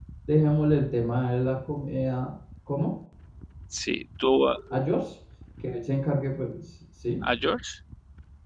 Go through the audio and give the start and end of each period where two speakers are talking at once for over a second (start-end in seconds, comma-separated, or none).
none